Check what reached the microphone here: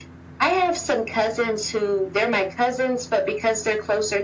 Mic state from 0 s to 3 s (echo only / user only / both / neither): echo only